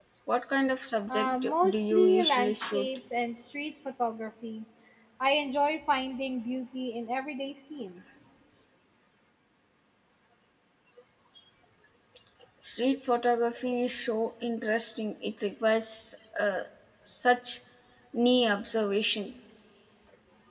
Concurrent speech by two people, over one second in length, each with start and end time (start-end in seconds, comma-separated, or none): 1.1-2.9